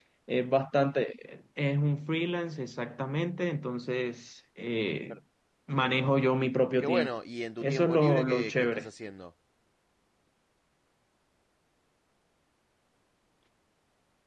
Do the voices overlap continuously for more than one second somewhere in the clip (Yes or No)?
Yes